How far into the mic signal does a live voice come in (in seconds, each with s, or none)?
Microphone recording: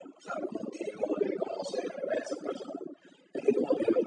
none